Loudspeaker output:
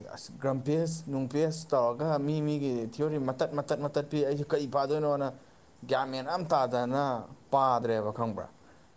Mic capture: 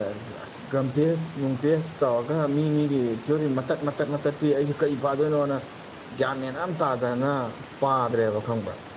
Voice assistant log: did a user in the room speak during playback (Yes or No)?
No